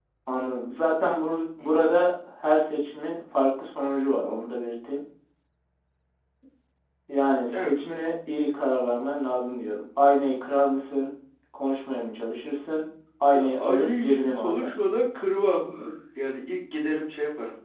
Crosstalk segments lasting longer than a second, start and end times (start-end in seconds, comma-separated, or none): 13.3-14.7